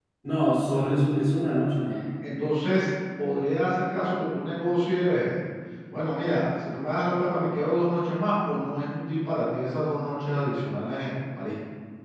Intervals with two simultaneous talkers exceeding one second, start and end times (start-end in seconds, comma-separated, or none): none